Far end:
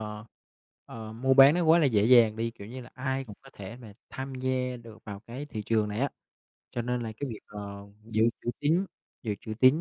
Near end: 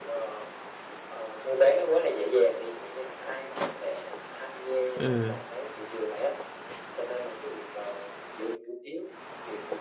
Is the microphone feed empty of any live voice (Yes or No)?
No